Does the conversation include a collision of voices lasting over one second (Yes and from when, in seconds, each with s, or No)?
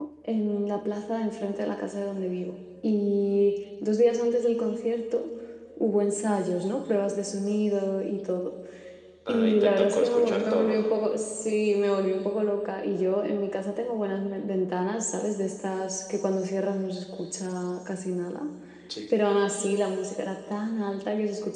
Yes, from 9.3 s